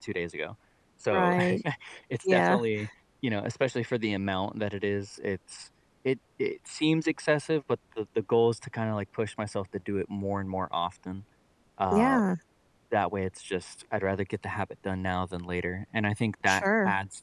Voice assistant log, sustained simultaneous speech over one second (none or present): none